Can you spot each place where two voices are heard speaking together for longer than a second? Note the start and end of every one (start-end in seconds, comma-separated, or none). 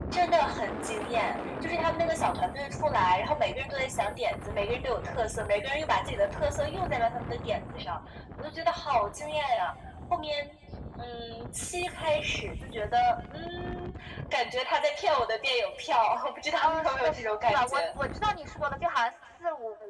16.6-17.8